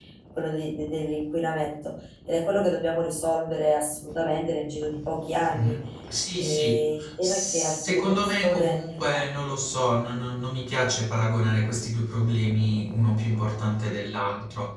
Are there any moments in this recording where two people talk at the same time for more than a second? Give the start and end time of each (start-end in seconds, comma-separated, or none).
6.4-8.8